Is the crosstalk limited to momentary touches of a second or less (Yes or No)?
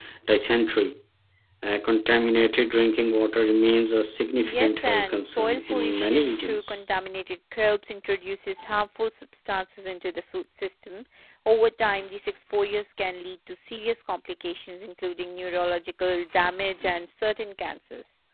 No